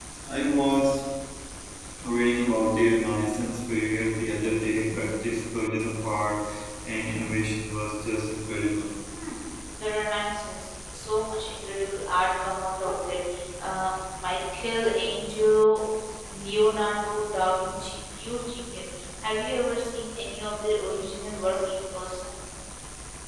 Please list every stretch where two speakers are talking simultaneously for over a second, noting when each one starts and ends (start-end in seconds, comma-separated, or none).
none